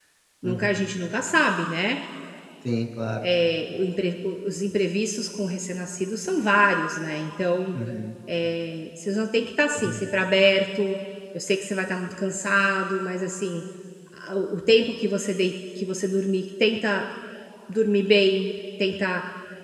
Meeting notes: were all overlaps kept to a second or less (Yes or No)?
Yes